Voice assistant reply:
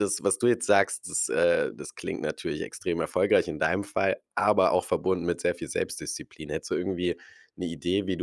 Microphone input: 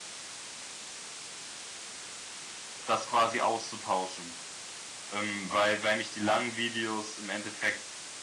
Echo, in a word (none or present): none